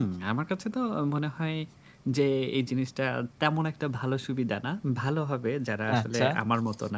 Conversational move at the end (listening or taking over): listening